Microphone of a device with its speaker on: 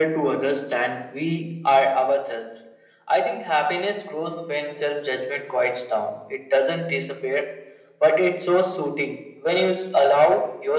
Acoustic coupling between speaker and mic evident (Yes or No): Yes